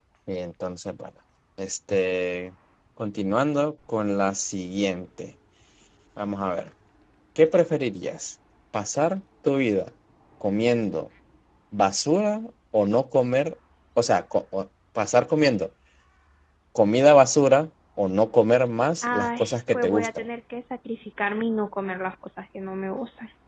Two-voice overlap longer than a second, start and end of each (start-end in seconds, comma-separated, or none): 19.0-20.3